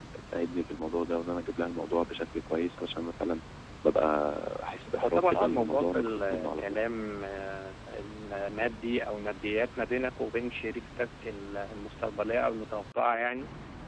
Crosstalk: present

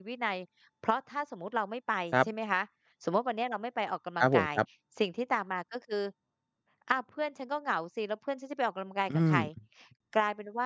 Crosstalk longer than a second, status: none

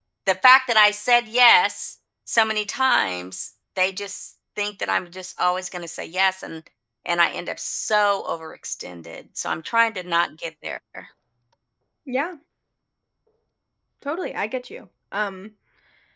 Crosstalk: none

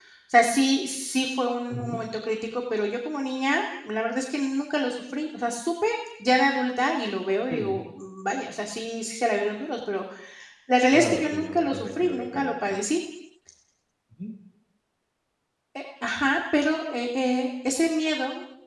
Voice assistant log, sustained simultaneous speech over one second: present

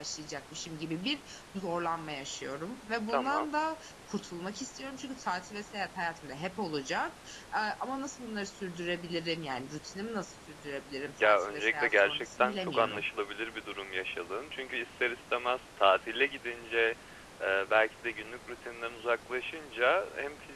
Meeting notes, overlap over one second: present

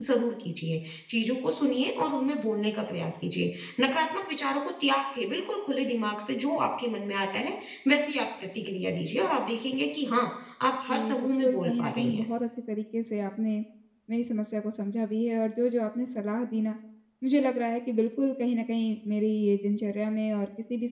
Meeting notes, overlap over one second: present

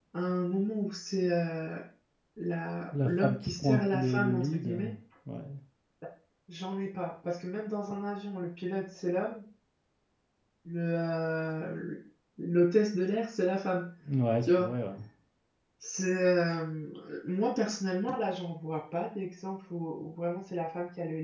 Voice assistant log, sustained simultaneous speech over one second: present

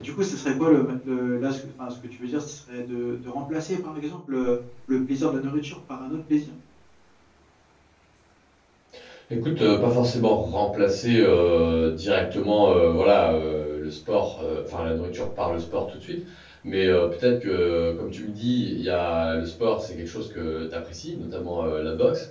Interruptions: none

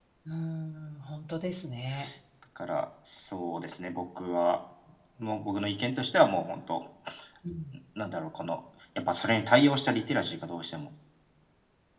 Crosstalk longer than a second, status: none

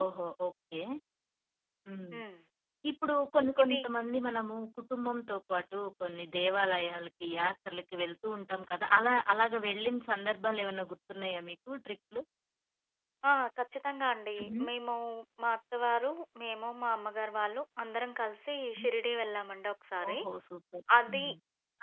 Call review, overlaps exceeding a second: none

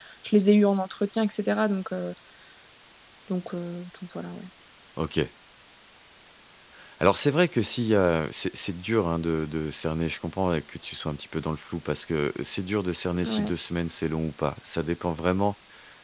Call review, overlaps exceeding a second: none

